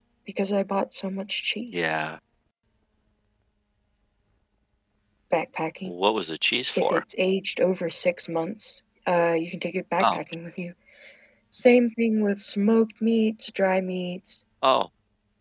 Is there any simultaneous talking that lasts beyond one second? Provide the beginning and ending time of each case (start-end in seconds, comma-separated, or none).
none